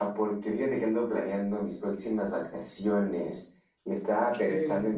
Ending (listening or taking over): listening